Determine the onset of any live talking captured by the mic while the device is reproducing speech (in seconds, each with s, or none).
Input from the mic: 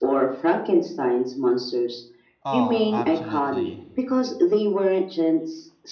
2.4 s